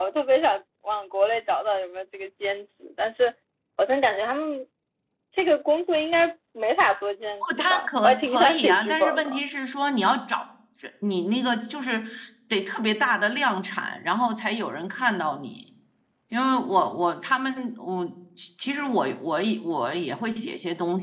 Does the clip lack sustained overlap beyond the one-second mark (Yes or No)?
No